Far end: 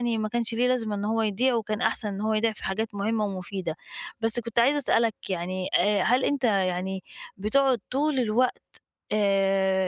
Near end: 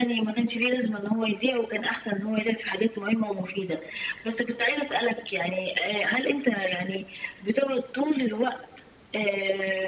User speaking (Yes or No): No